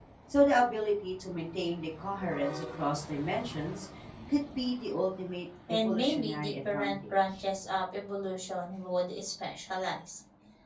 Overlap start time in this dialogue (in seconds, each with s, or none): 5.7 s